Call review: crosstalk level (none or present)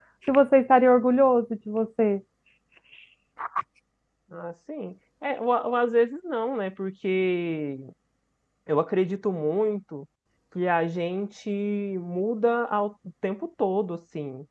none